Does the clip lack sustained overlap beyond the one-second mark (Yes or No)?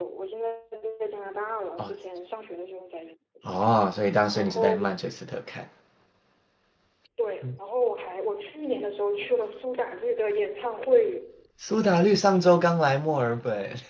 Yes